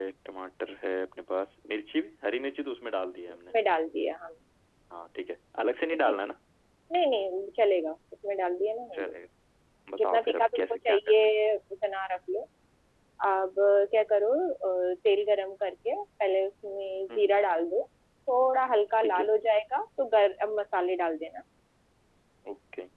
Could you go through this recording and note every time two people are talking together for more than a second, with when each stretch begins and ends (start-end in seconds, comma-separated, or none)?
10.0-11.3